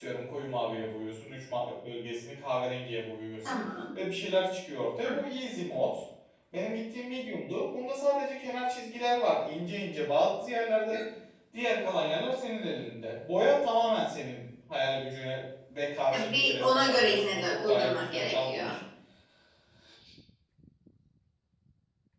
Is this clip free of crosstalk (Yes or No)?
No